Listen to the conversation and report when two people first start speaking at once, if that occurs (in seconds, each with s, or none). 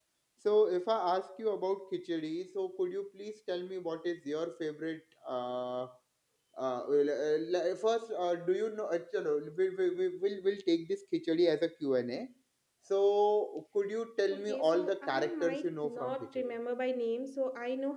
14.3 s